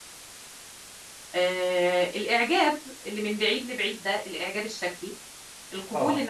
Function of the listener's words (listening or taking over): listening